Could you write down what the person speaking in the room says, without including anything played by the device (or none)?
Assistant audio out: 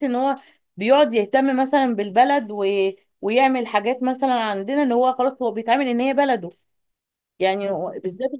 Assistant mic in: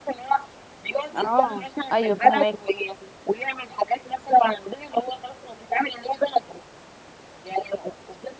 اه ايوه فاهمك